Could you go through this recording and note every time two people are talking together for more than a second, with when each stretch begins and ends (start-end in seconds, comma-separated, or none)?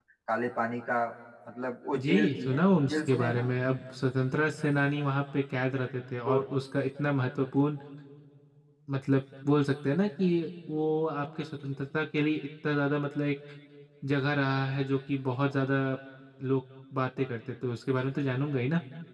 2.0-3.5